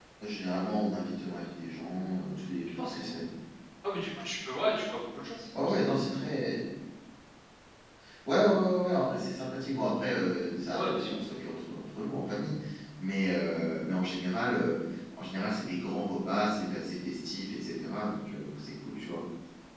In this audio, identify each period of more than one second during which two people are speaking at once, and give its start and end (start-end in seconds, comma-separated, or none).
none